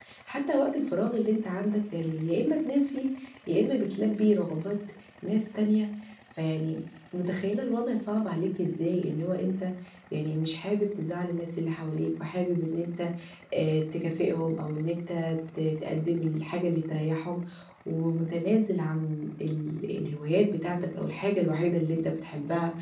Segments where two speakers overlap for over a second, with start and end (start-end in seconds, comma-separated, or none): none